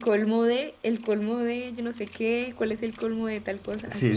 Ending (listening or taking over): taking over